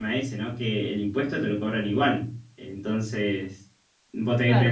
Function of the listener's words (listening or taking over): taking over